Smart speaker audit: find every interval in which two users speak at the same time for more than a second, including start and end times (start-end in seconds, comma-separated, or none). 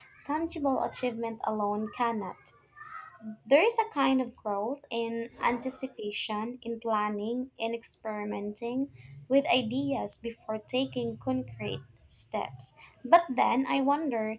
none